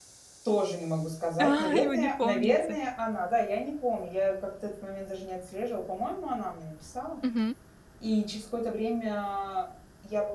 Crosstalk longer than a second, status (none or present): present